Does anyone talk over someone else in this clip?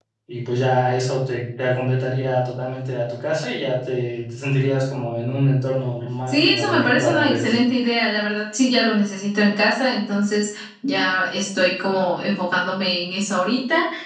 Yes, from 6.3 s

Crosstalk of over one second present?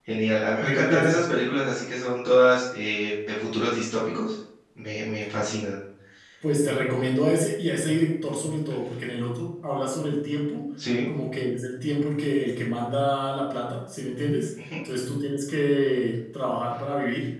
No

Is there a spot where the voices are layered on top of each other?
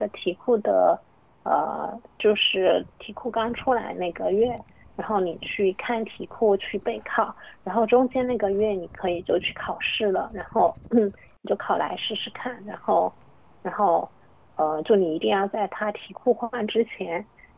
No

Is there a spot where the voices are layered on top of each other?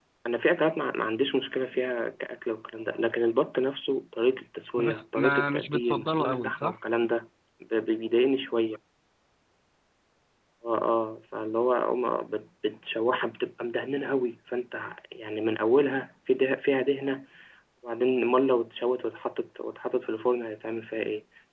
Yes, from 4.8 s

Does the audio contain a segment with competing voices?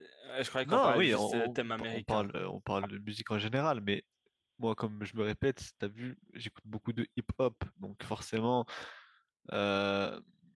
Yes, from 0.6 s

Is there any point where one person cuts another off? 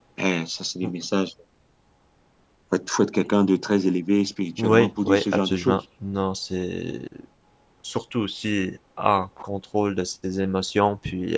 Yes, from 4.6 s

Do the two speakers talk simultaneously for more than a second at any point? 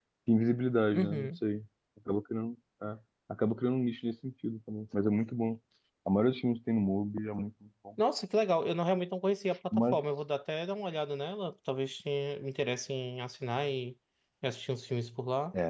No

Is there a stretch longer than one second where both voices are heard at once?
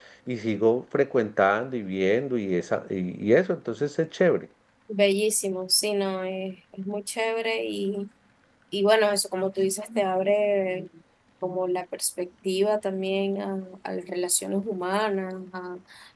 No

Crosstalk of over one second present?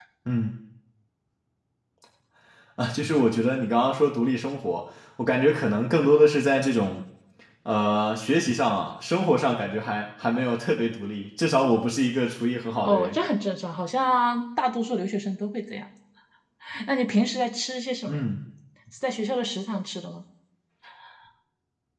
No

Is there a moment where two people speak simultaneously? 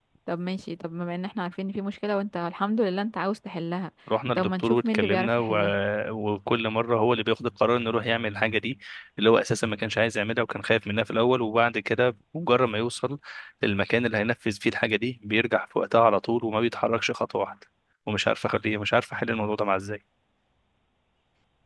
Yes, from 4.4 s

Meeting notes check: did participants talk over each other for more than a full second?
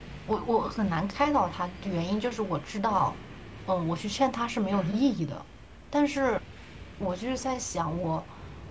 No

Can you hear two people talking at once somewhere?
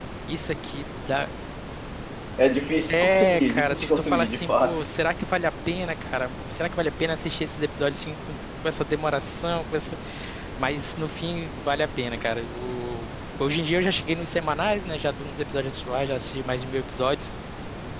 Yes, from 2.9 s

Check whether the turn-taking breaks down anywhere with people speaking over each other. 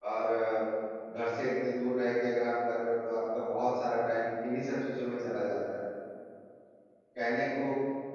No

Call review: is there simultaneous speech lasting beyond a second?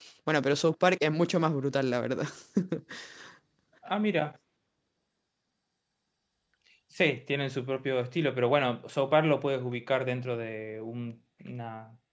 No

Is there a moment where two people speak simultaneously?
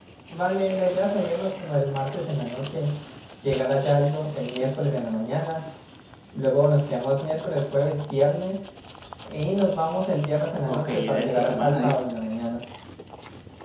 Yes, from 10.7 s

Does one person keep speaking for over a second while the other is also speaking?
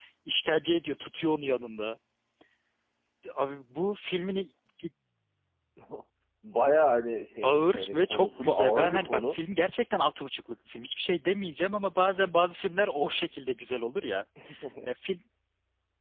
Yes, from 7.4 s

